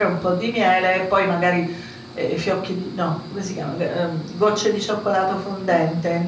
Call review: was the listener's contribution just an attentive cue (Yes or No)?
Yes